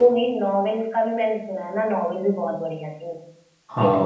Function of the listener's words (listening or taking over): taking over